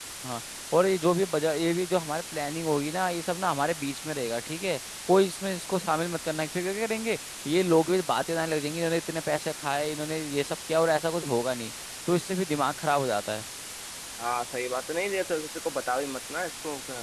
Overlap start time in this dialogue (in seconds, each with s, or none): none